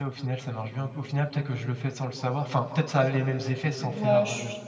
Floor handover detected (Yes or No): Yes